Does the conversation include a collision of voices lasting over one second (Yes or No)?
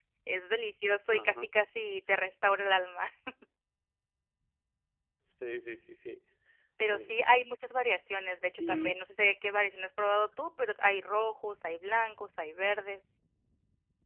No